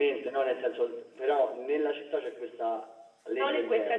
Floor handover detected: Yes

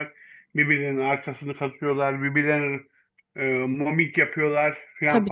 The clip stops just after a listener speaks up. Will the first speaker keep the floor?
Yes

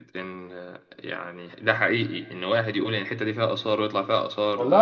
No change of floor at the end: No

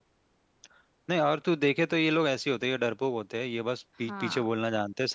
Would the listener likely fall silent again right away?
Yes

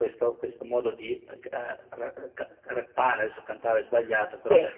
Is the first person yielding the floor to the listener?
No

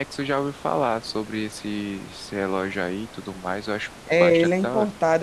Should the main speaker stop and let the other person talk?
Yes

